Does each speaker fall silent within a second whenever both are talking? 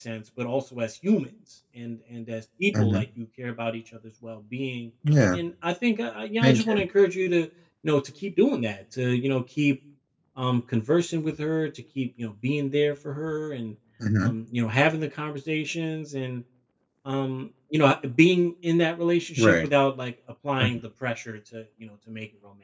Yes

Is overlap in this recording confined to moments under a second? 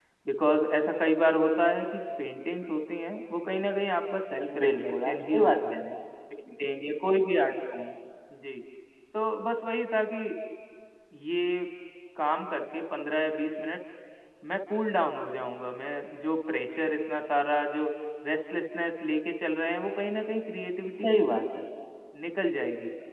No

